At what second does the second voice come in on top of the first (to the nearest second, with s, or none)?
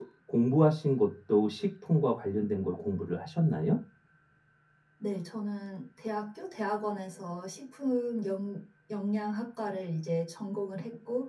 none